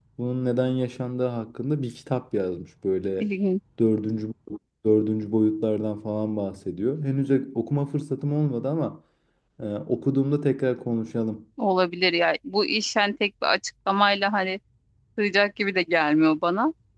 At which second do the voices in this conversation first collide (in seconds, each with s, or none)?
none